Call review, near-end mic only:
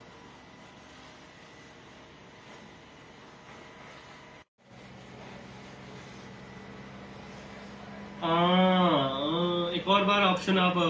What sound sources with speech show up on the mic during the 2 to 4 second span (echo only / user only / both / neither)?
neither